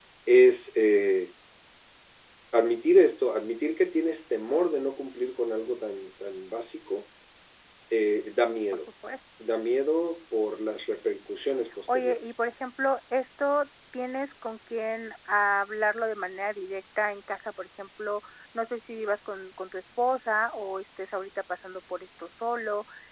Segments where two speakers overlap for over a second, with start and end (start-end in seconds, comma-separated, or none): none